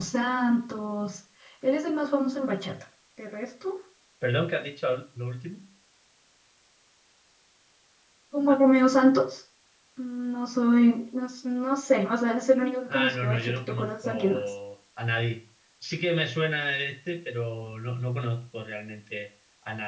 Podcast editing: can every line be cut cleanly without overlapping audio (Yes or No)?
No